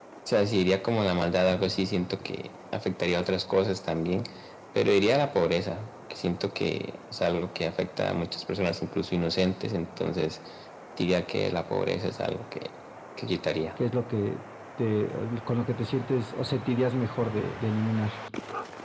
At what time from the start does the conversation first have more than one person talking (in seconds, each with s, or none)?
none